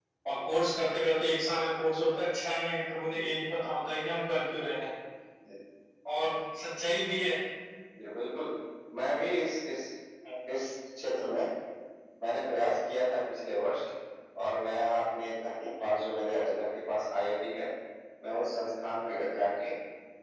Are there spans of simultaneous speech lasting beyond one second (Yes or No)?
No